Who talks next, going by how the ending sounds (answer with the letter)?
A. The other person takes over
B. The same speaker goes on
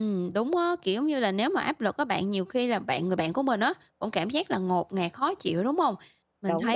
B